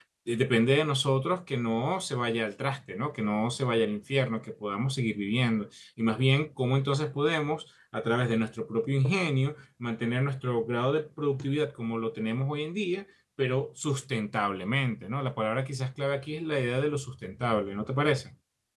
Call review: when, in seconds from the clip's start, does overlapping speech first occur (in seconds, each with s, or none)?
none